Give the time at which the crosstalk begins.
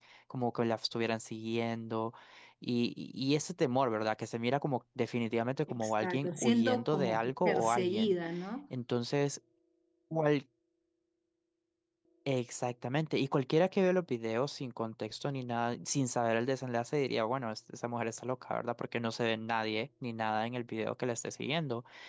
5.7 s

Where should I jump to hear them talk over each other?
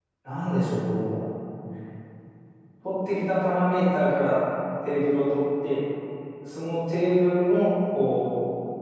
none

